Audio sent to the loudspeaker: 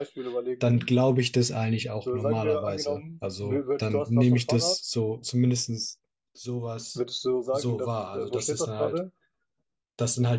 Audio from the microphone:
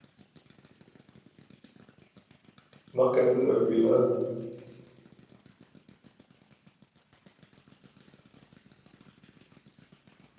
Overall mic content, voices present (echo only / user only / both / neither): user only